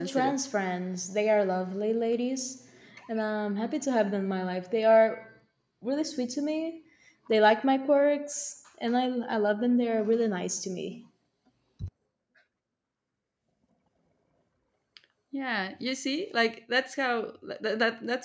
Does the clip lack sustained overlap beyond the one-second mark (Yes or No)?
Yes